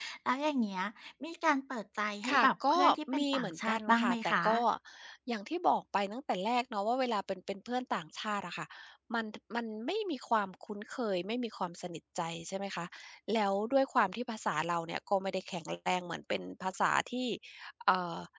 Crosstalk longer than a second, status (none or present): present